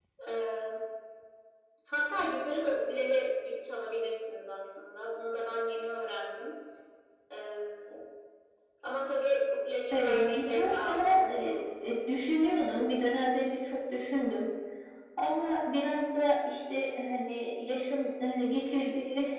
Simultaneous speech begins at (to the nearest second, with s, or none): 10 s